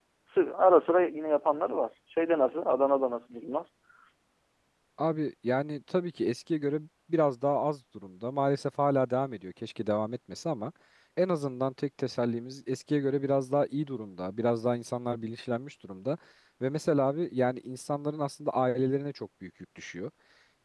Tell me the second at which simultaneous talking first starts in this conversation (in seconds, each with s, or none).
none